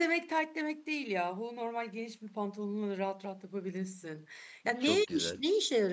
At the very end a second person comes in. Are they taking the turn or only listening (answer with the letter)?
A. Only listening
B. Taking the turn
A